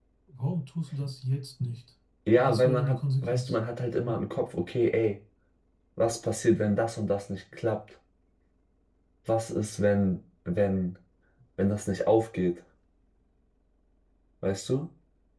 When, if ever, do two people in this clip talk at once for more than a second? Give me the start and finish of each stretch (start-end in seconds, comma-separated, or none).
2.4-3.6